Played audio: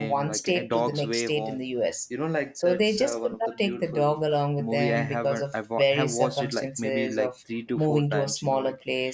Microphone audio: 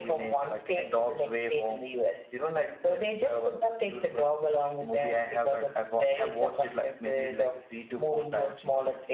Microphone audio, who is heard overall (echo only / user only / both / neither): echo only